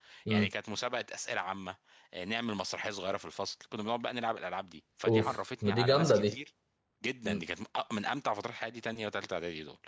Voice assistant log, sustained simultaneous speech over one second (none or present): present